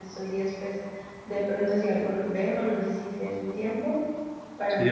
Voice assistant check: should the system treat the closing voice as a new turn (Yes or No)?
Yes